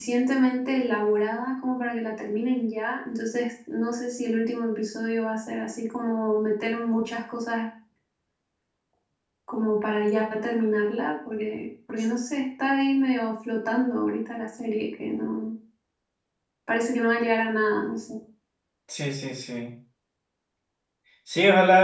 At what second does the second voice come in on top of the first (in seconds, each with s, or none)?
none